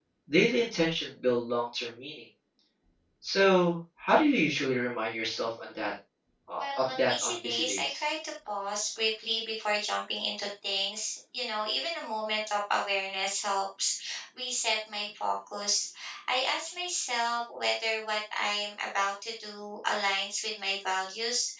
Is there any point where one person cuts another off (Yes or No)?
Yes